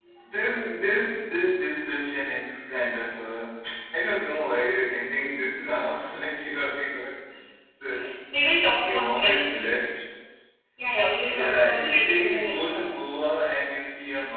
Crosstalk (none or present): present